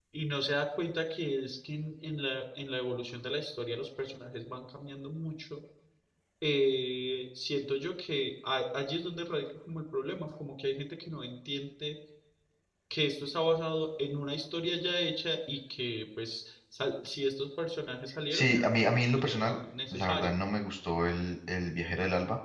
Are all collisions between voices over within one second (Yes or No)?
No